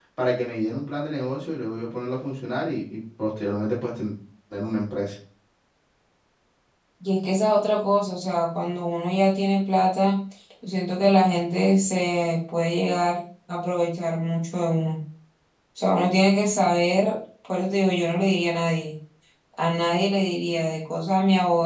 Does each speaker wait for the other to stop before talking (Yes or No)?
Yes